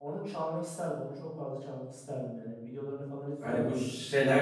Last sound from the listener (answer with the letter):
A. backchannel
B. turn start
B